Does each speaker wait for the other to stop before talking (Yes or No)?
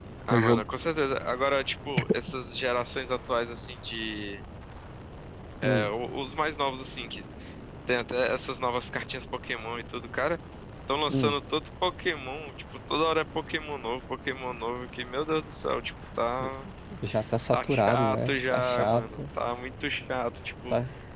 No